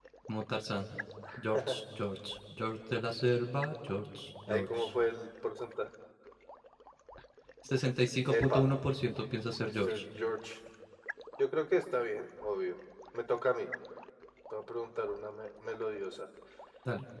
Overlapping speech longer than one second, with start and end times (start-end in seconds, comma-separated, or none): none